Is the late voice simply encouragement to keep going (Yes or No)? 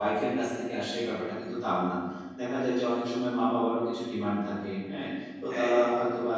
Yes